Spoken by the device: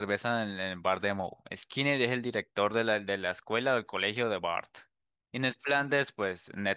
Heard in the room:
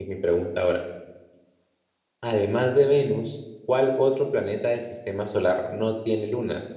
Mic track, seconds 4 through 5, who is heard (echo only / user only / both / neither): user only